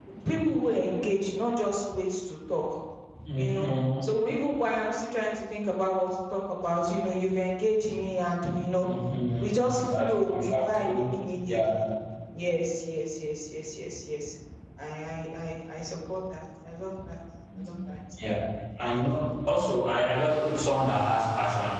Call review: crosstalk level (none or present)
present